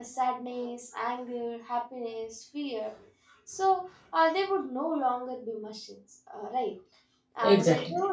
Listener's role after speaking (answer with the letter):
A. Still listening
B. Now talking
A